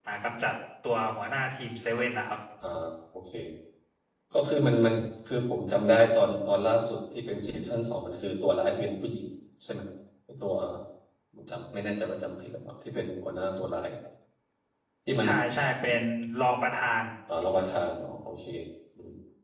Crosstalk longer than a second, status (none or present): none